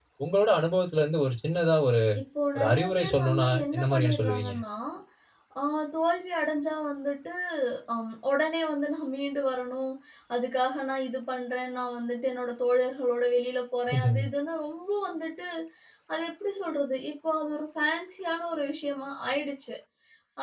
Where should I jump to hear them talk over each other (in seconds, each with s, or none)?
2.5 s